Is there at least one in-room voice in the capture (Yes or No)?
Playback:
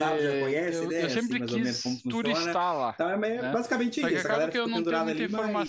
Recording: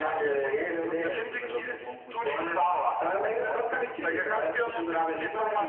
No